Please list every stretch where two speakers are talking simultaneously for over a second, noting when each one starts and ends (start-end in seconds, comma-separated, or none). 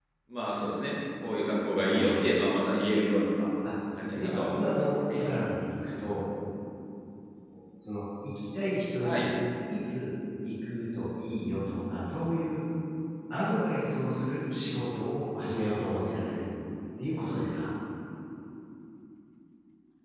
4.1-5.3